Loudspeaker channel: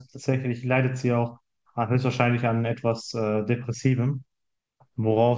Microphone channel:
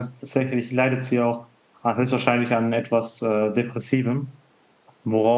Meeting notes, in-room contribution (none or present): none